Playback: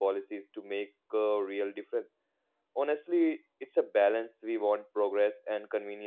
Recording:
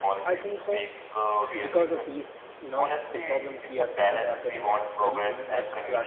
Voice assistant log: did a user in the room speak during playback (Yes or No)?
Yes